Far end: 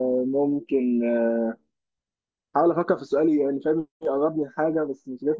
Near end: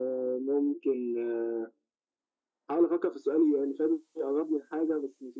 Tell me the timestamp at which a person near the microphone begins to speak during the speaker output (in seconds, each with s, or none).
none